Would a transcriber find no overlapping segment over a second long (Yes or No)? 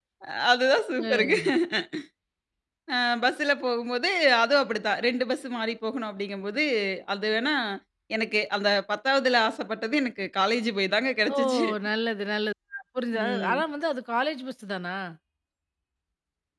Yes